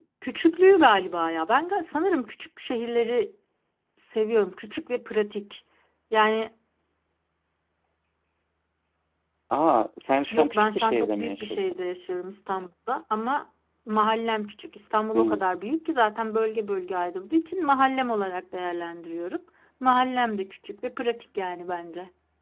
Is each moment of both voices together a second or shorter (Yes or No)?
No